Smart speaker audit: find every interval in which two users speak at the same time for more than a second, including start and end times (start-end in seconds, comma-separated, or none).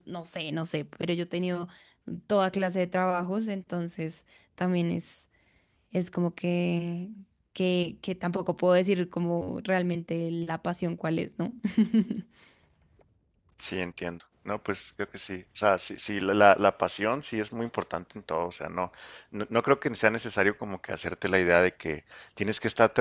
none